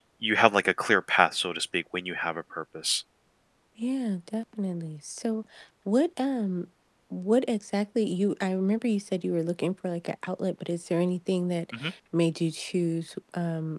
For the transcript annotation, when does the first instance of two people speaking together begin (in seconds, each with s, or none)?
none